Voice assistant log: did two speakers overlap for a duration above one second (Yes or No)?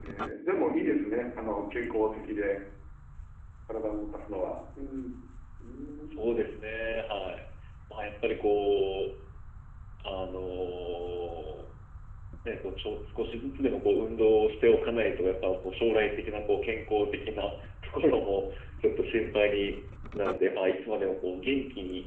No